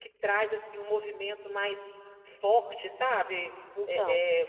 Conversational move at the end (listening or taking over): listening